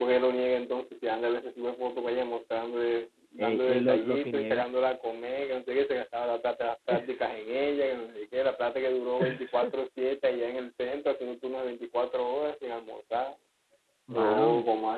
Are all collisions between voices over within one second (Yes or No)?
No